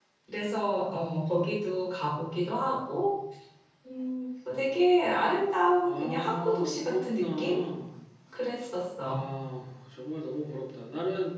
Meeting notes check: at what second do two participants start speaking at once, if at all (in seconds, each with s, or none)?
5.8 s